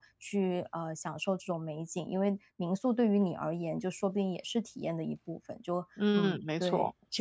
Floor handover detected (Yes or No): Yes